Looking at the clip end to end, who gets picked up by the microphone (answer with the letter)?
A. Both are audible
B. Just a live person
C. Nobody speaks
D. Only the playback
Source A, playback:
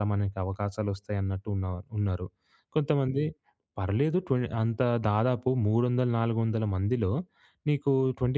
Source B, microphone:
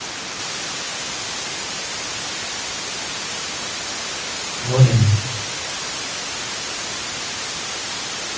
B